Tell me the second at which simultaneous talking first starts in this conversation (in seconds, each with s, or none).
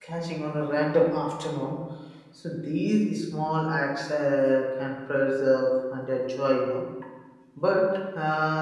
none